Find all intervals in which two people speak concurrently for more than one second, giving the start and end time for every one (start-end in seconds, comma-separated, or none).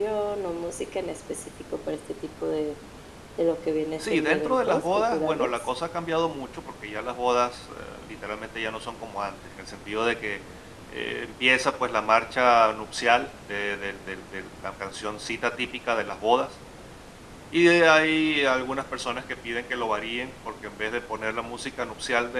4.0-5.7